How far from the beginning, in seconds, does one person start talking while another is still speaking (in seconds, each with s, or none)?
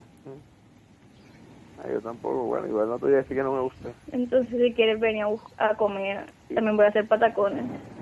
none